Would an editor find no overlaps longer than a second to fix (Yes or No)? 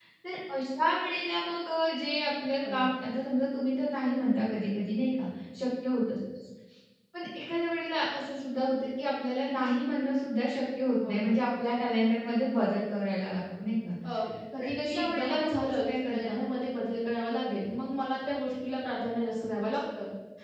No